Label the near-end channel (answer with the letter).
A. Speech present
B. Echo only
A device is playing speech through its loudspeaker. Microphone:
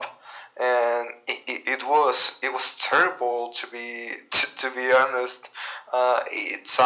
B